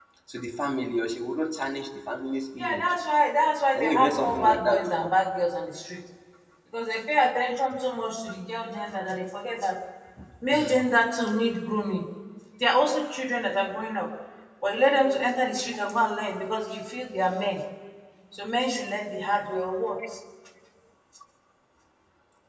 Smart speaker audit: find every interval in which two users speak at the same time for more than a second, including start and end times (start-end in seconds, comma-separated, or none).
3.8-5.1